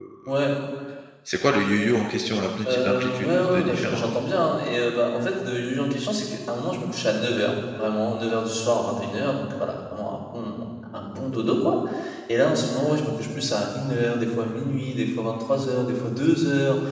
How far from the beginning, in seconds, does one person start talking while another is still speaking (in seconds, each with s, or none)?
2.6 s